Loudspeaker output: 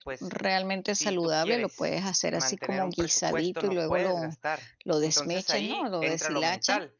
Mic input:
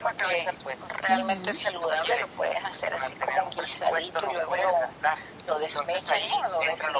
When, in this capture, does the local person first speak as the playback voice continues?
1.1 s

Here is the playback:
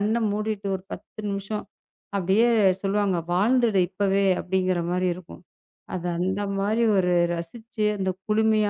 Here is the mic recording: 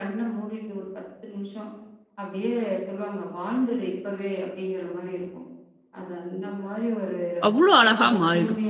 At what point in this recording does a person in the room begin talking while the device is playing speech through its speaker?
7.5 s

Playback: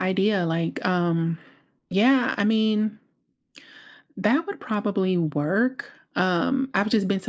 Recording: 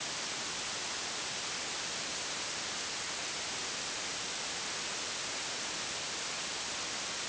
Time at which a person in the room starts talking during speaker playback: none

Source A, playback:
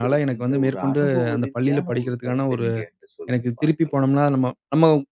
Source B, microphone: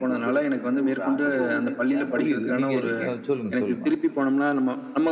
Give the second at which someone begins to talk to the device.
2.1 s

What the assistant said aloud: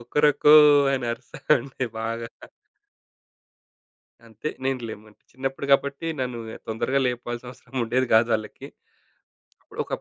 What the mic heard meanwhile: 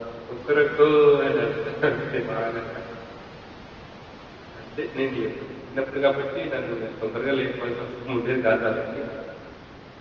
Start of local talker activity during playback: none

